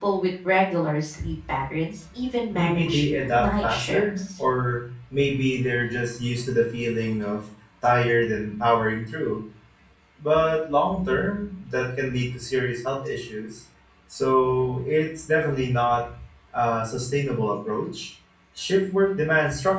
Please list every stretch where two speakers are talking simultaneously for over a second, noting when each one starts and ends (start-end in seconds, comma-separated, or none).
2.5-4.2